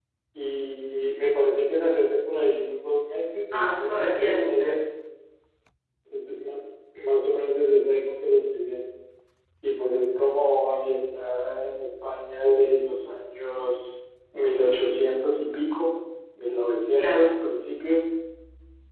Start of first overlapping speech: 4 s

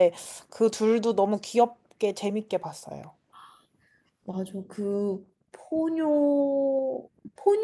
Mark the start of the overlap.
none

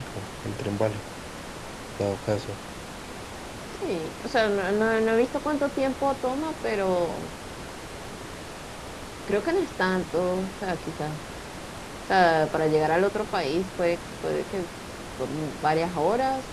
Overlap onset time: none

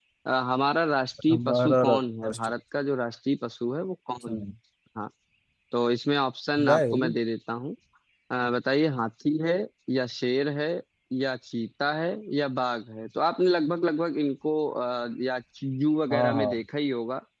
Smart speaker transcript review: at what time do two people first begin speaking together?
1 s

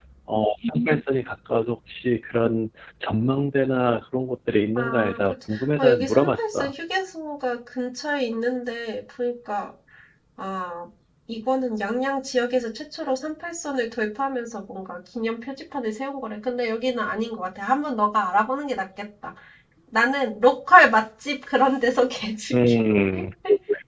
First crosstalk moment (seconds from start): 5 s

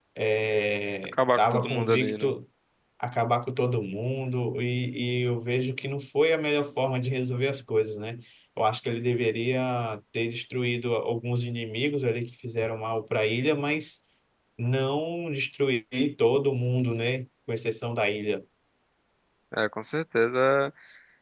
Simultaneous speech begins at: 1 s

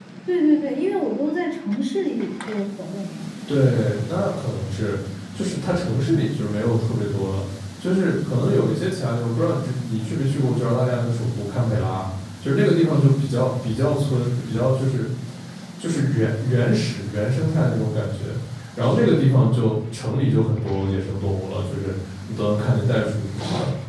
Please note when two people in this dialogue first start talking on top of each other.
none

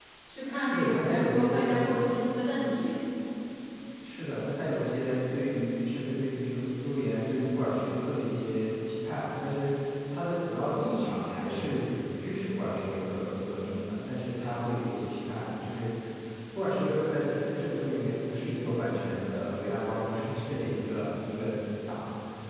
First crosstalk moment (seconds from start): 1 s

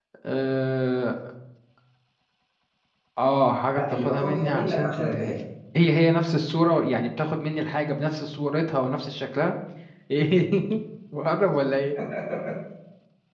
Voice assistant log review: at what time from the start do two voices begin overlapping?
4 s

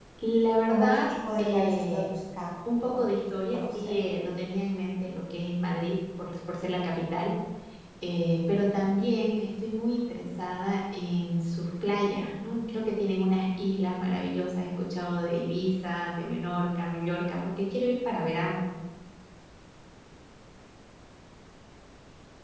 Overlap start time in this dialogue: 1 s

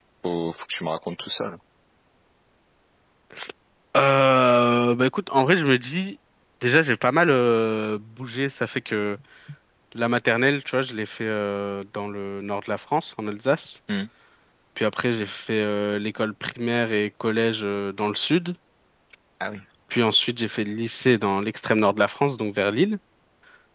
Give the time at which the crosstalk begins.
none

